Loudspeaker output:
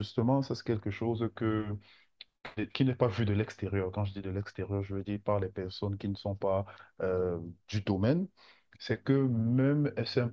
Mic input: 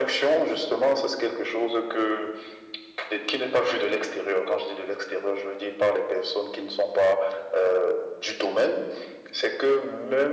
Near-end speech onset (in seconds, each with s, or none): none